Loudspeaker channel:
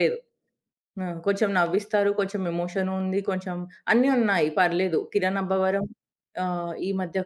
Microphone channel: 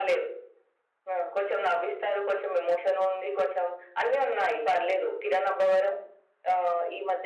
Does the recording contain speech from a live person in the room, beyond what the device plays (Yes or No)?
No